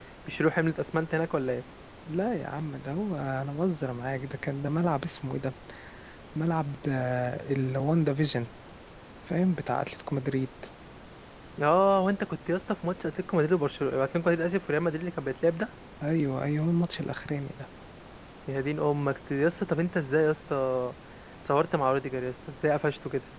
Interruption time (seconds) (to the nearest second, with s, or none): none